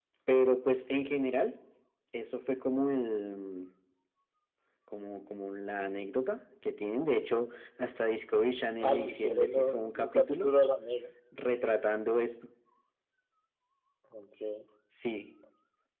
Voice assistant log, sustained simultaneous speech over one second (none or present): present